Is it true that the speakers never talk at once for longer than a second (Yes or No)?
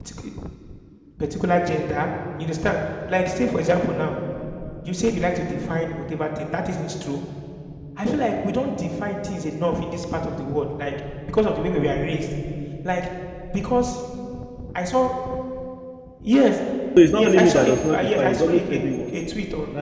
No